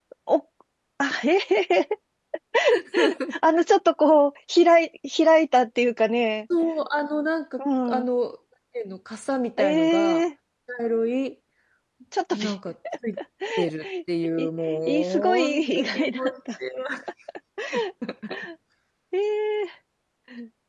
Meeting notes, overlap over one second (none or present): present